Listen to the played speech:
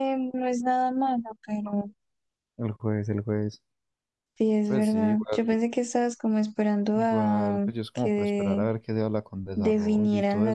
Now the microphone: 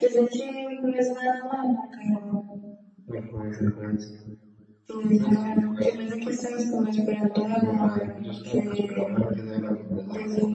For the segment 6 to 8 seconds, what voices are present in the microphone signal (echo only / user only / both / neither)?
echo only